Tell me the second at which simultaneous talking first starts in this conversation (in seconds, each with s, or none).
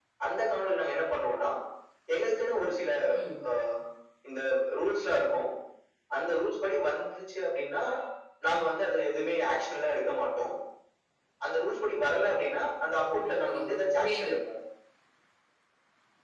13.0 s